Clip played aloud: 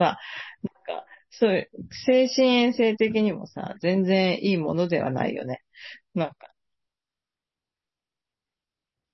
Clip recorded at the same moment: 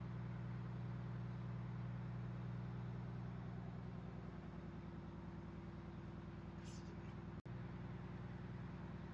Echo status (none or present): none